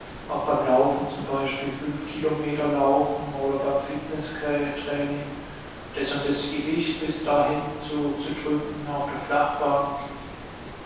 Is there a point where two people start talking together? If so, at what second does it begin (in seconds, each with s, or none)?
none